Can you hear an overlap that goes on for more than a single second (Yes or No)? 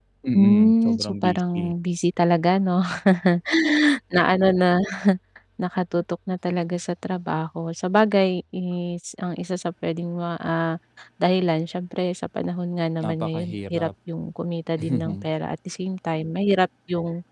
Yes